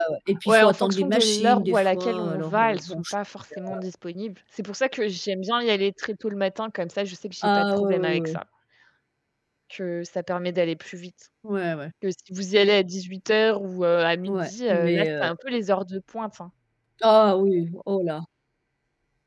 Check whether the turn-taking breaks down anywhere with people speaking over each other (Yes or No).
Yes